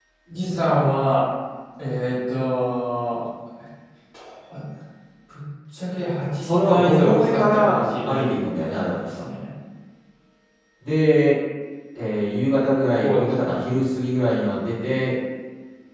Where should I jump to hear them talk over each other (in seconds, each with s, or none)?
6.4 s